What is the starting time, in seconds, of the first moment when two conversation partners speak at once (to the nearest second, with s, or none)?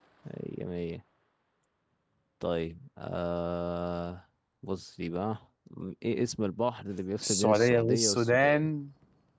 7 s